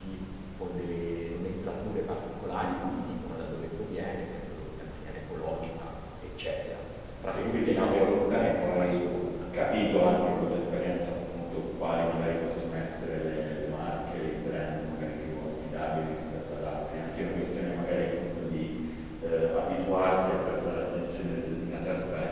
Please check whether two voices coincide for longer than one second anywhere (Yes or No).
Yes